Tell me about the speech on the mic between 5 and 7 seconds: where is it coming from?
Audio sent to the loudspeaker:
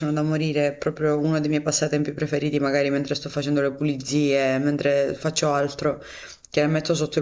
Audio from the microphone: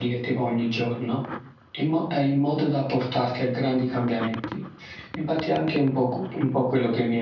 user only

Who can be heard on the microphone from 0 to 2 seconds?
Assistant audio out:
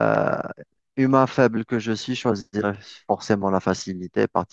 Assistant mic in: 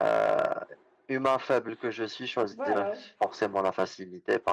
echo only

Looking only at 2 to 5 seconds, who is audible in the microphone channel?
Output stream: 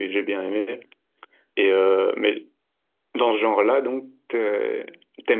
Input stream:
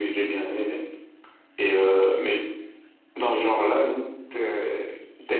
echo only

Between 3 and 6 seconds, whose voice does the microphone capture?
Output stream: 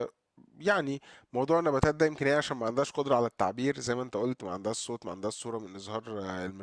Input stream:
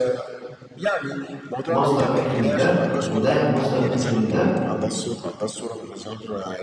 both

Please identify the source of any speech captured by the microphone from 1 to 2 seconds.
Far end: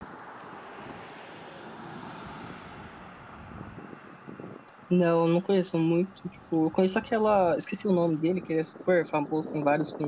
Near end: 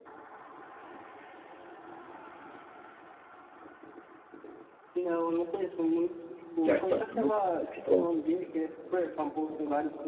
neither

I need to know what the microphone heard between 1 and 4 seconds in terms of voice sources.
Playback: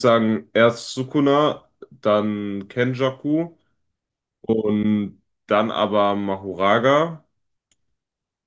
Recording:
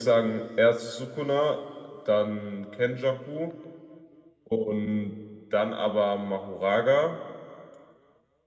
echo only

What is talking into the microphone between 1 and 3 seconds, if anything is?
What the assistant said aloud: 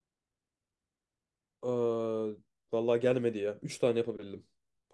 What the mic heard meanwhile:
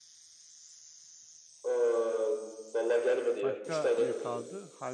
echo only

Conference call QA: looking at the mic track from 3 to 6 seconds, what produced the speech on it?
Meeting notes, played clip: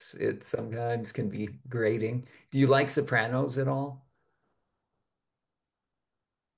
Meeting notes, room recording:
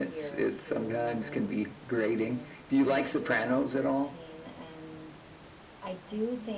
both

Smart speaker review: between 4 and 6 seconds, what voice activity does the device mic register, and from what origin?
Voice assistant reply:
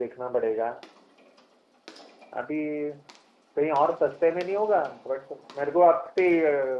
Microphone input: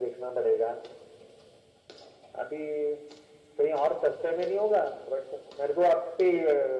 echo only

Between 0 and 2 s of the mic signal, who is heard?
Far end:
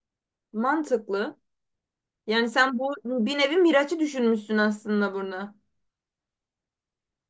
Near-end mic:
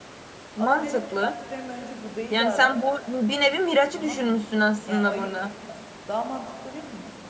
both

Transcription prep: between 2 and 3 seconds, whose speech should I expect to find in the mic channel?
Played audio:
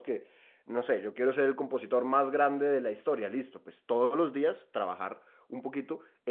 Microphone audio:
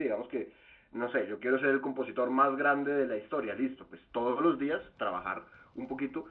echo only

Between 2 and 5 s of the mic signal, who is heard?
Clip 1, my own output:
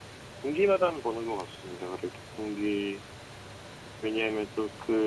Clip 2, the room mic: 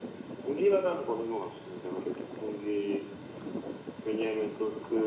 echo only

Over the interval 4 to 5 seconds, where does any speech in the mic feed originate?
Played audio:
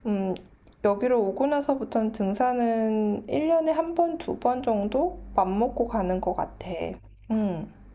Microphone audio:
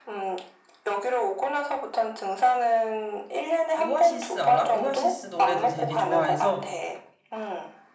both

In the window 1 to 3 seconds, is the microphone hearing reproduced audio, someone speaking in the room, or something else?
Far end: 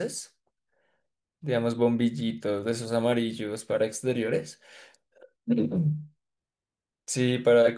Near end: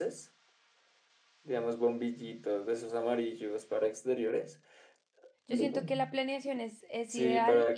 echo only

